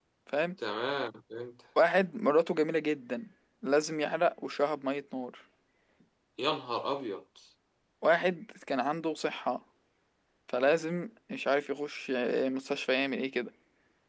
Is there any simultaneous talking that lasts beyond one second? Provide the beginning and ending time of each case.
none

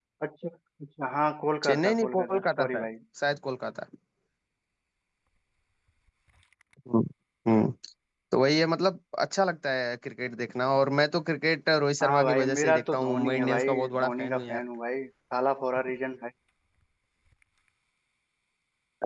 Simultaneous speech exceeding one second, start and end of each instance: 1.7-2.9, 12.0-14.6

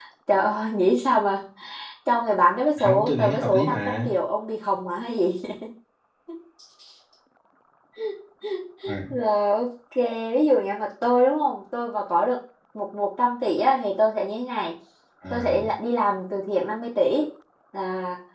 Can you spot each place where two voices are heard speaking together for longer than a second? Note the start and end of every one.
2.8-4.1

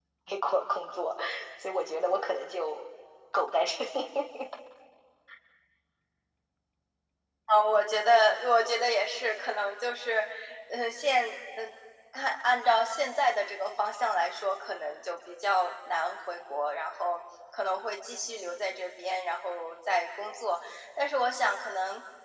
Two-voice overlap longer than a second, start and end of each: none

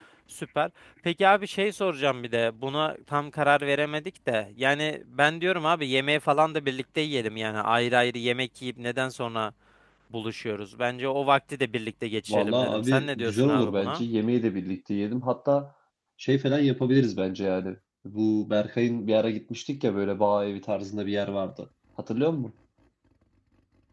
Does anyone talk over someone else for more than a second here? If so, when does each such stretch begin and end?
12.3-14.0

